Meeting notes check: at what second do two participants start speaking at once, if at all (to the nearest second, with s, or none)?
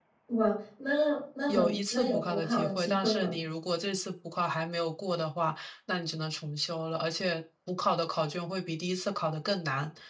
1 s